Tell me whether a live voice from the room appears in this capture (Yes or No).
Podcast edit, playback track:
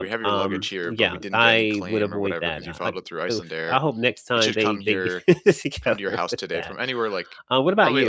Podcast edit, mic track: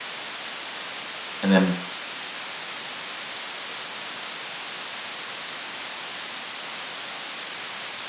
Yes